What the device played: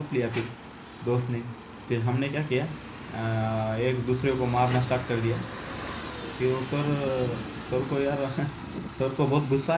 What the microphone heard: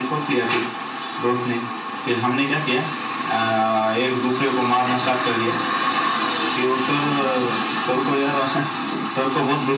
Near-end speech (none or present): none